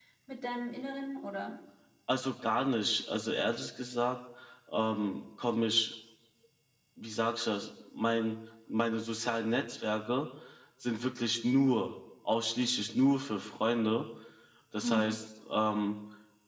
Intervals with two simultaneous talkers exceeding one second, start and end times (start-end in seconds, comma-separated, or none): none